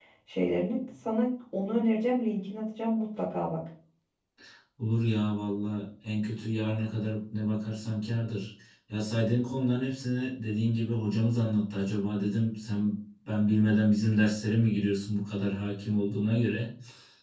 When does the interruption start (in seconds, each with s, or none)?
none